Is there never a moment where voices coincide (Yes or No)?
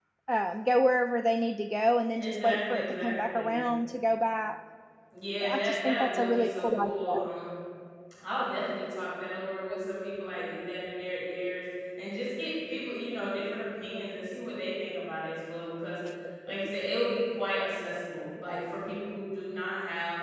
No